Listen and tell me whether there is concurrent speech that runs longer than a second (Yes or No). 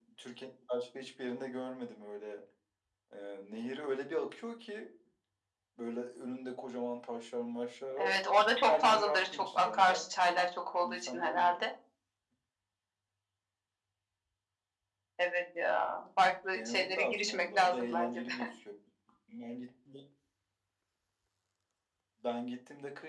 Yes